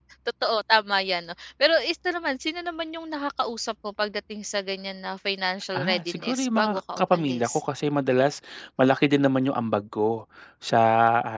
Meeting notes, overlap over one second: present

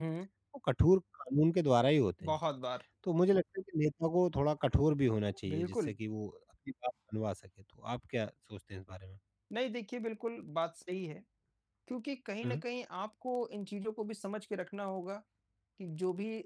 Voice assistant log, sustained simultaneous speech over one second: none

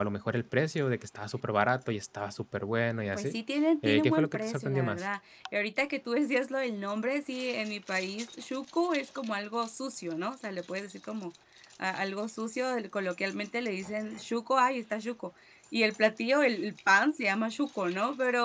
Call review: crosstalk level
present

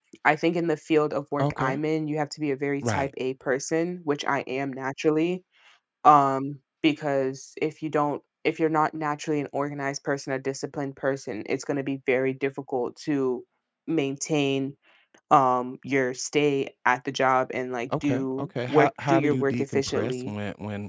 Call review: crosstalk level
present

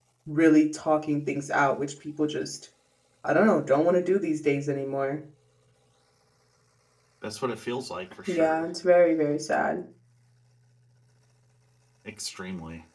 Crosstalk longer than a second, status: none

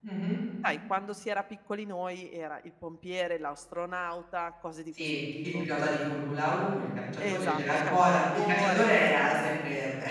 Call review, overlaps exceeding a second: present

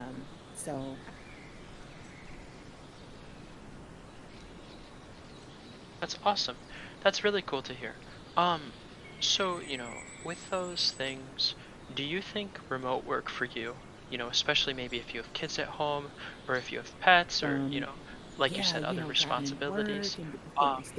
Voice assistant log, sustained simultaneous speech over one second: present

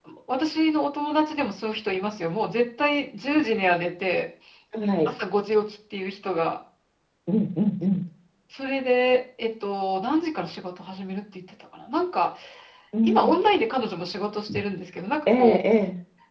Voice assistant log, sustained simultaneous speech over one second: none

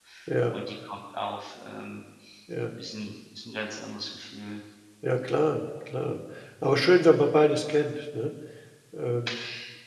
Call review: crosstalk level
none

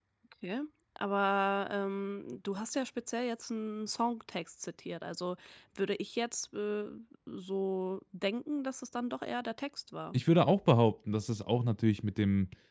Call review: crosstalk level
none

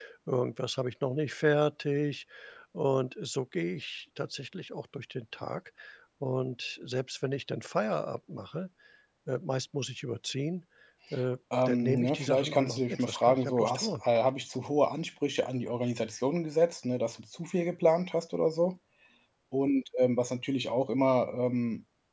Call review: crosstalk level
present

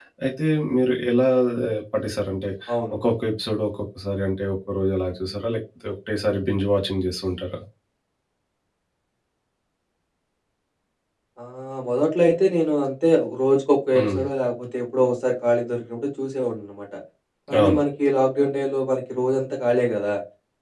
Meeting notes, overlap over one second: none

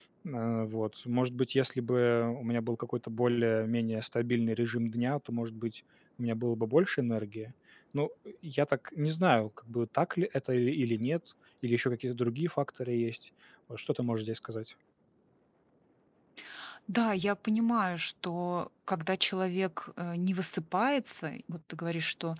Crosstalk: none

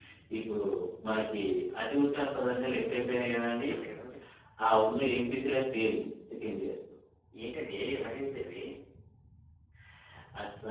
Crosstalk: none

